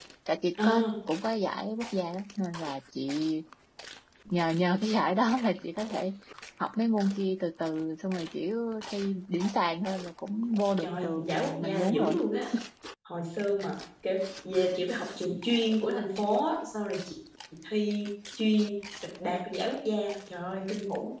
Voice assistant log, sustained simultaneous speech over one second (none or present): present